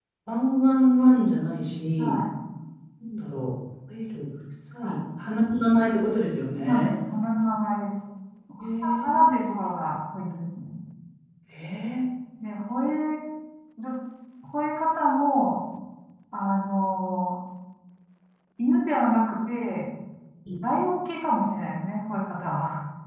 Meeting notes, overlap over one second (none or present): none